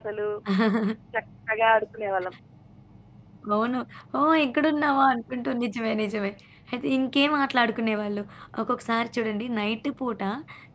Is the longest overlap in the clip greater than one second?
No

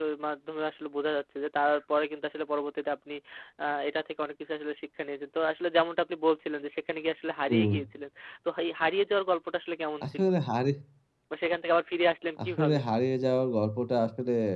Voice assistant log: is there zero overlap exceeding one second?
Yes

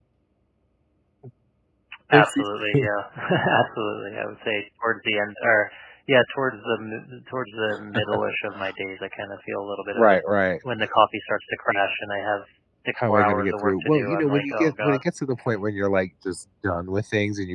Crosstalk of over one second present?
Yes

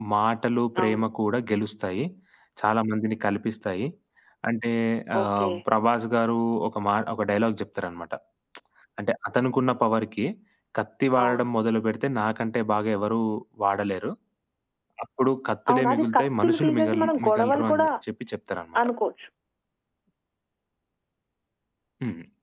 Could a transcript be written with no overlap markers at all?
No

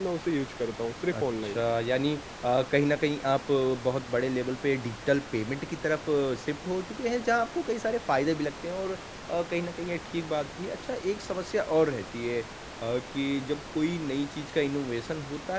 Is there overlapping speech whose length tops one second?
No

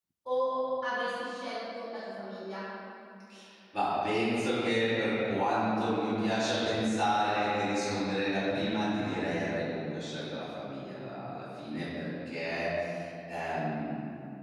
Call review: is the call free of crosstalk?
Yes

